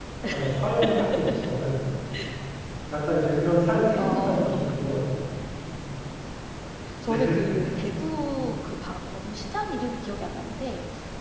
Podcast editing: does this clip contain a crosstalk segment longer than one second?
Yes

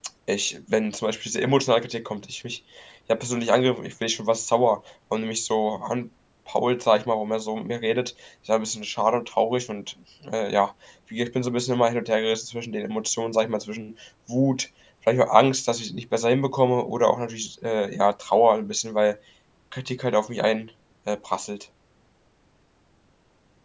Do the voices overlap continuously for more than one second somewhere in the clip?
No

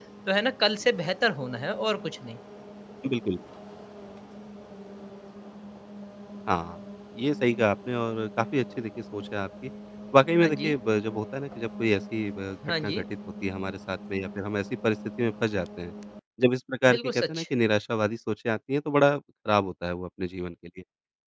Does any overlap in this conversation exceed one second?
No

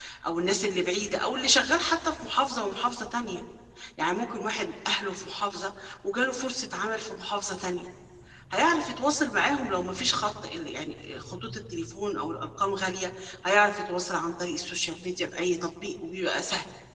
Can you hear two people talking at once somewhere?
No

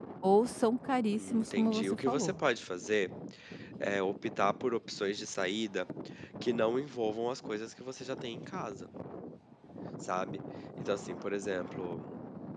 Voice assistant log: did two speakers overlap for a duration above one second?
Yes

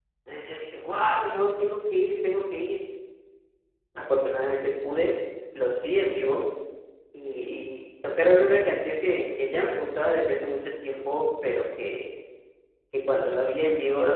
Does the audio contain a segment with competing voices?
No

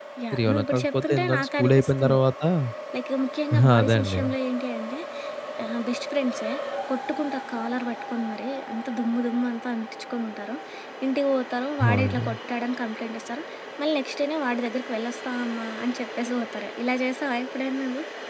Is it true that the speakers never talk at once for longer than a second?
No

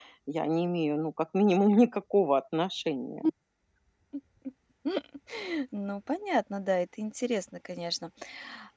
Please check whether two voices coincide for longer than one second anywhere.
No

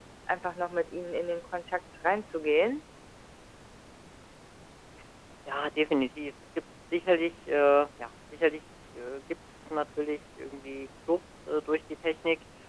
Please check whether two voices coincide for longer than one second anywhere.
No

